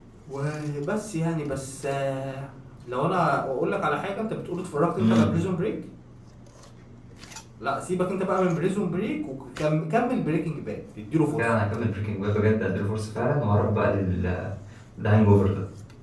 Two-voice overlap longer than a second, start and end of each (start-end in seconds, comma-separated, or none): none